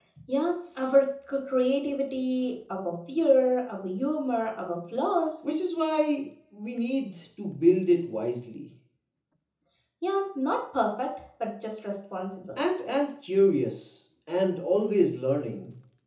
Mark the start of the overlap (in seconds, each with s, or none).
none